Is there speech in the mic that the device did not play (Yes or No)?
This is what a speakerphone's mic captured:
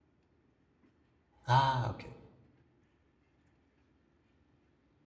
Yes